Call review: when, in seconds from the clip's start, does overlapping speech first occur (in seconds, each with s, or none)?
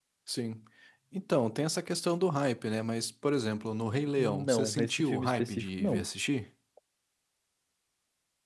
4.2 s